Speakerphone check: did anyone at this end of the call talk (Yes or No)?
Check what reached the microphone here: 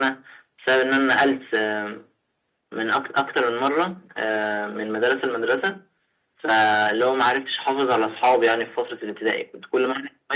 No